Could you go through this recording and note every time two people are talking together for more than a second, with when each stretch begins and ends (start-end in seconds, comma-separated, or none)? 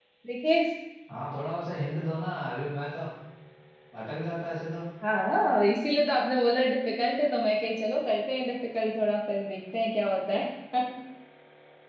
none